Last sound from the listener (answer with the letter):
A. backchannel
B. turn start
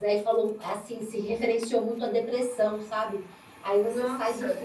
A